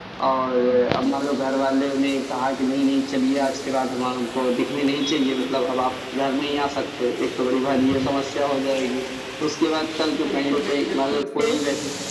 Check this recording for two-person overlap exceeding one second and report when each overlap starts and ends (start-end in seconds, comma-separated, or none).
10.2-11.6